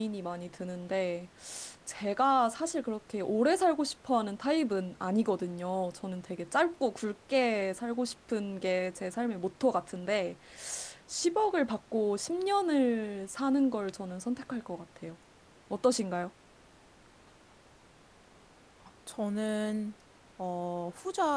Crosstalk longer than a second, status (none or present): none